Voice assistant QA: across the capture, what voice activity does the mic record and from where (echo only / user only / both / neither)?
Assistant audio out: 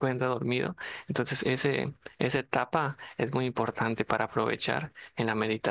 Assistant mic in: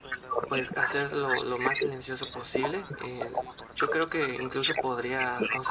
both